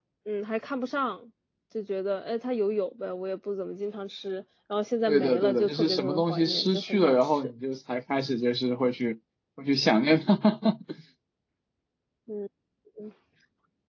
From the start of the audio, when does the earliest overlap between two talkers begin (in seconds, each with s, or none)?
5.1 s